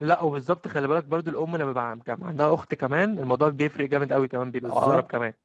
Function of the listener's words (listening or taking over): taking over